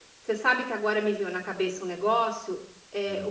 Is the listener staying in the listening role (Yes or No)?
Yes